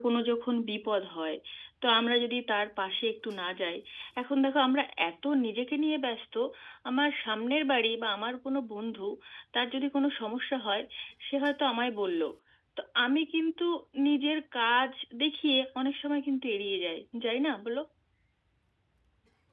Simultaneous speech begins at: none

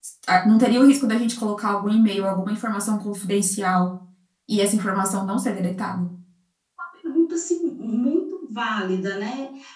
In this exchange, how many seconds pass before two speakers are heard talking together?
none

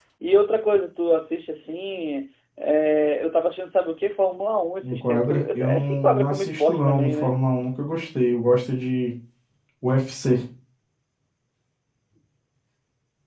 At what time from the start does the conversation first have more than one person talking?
4.8 s

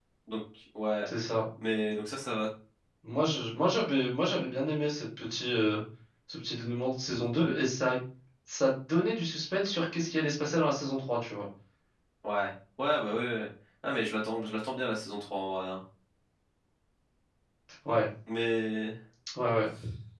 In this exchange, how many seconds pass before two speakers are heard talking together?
none

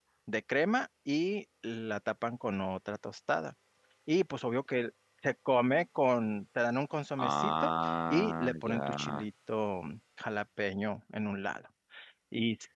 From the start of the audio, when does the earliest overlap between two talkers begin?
7.2 s

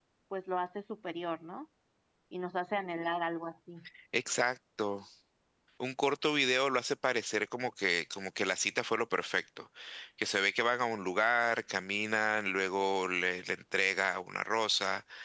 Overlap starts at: none

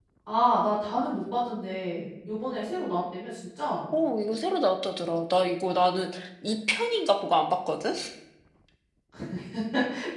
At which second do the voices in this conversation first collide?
none

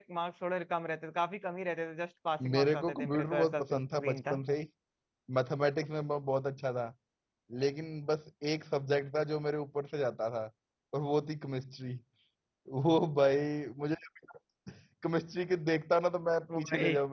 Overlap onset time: 2.4 s

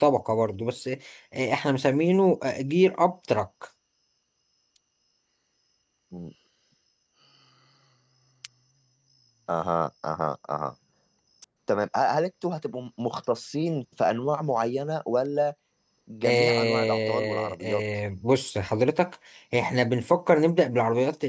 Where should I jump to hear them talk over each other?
16.3 s

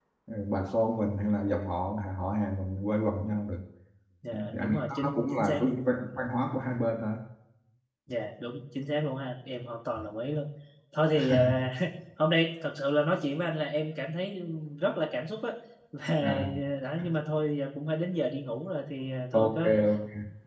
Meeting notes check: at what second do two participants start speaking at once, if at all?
4.3 s

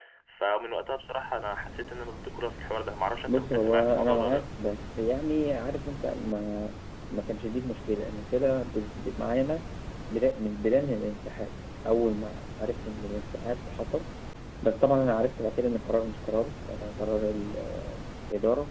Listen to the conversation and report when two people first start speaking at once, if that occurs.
3.3 s

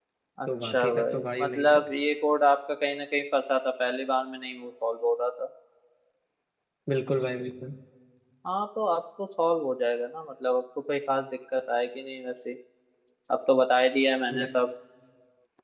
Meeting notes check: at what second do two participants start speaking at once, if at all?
0.6 s

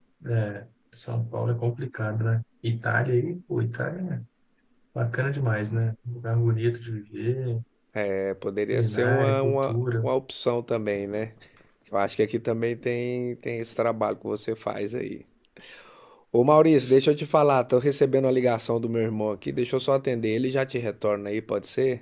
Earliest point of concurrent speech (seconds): 8.7 s

